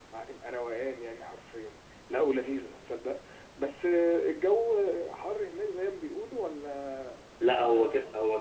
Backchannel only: No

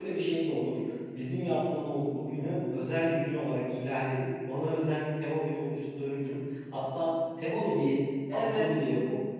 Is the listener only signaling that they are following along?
Yes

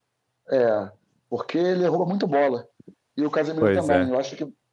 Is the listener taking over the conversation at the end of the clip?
No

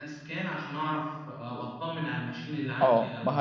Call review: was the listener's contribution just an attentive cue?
No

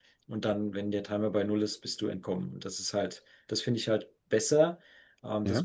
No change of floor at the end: Yes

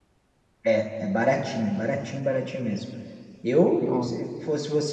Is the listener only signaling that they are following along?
Yes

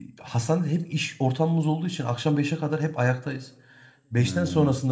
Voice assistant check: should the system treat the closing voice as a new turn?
No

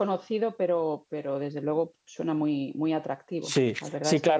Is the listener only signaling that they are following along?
No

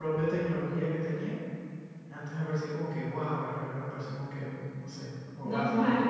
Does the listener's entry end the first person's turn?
Yes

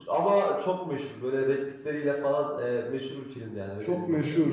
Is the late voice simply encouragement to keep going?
Yes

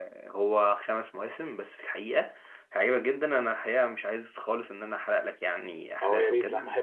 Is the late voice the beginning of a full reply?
Yes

